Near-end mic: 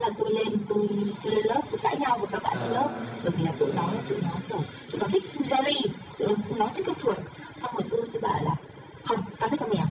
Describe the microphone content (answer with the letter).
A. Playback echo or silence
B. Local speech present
B